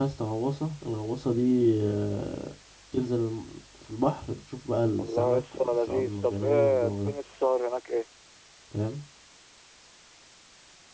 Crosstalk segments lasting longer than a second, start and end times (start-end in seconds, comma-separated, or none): 5.0-7.1